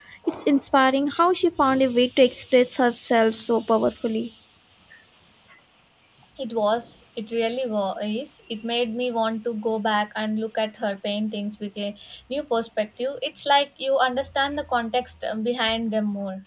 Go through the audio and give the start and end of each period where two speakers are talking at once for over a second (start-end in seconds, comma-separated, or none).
none